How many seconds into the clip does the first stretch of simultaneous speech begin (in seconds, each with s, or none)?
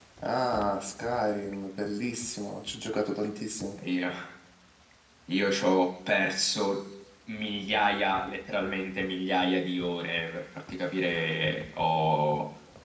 none